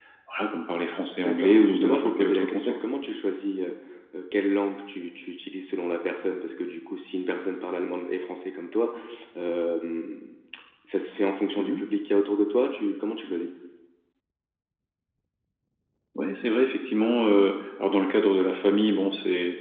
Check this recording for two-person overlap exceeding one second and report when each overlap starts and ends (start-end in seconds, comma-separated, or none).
1.2-2.7